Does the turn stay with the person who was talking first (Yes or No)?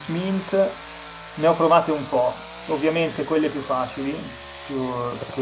Yes